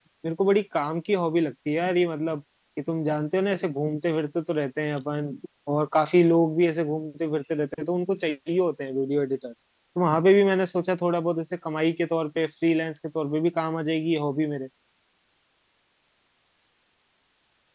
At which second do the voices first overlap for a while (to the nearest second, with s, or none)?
none